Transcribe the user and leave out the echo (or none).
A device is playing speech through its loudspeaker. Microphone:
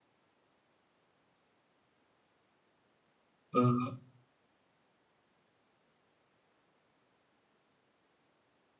हं.